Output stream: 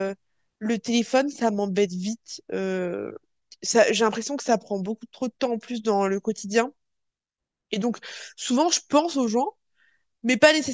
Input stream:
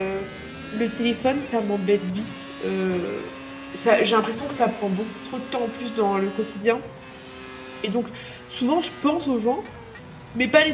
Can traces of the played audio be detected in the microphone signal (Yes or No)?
Yes